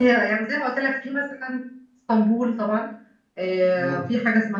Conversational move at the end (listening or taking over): listening